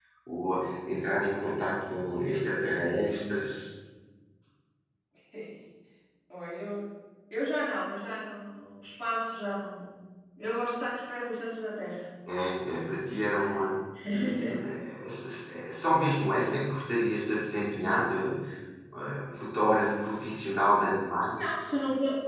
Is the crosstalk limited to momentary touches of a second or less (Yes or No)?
Yes